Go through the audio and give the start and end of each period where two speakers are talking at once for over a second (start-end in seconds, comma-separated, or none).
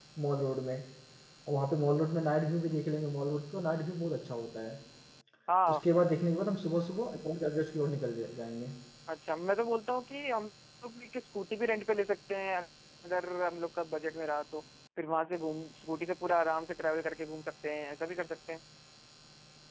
none